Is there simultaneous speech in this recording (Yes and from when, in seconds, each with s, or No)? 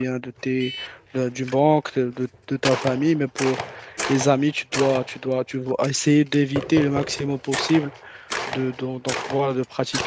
No